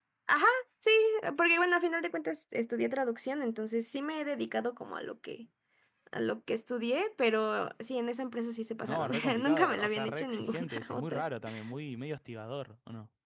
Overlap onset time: 8.8 s

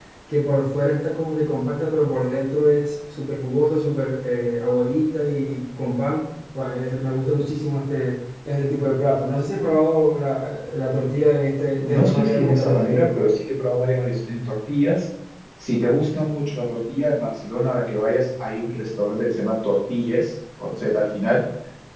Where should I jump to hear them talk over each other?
11.8 s

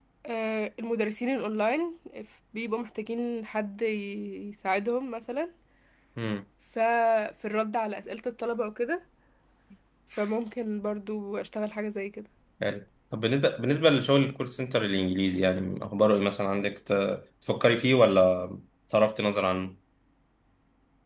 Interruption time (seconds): none

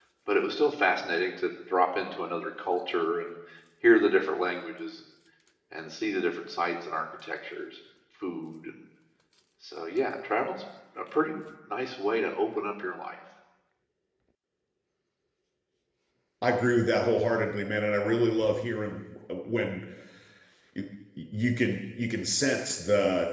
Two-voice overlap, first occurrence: none

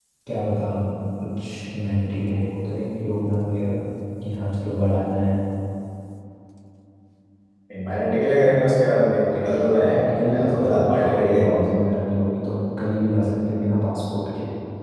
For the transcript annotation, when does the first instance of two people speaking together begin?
9.8 s

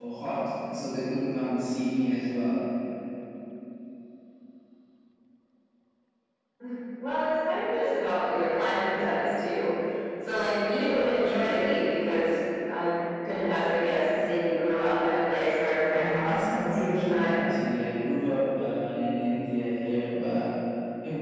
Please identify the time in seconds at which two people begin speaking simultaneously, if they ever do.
15.9 s

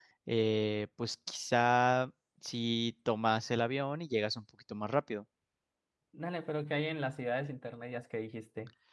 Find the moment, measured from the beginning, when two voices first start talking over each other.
none

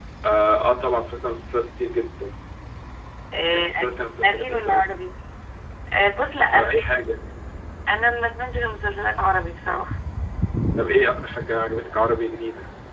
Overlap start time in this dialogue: 3.5 s

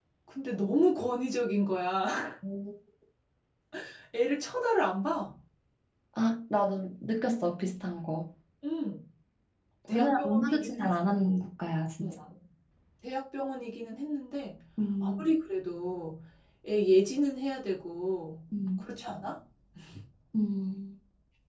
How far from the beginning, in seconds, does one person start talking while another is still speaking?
9.9 s

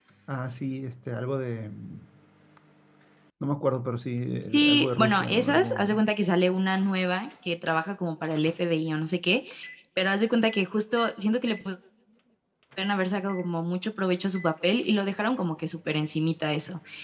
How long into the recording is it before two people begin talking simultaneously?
4.5 s

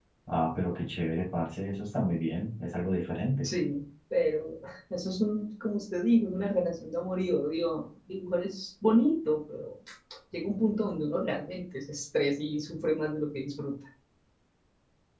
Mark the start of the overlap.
none

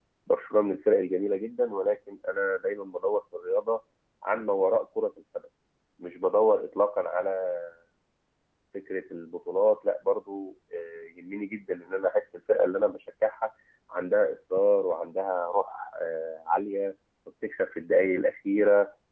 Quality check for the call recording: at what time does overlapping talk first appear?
none

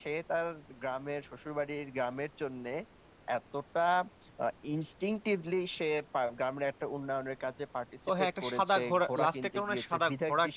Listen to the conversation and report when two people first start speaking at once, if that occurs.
8.1 s

